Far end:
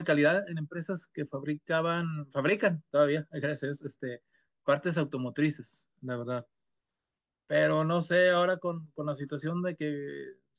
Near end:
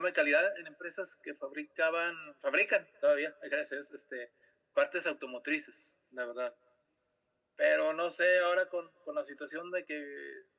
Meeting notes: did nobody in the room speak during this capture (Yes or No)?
Yes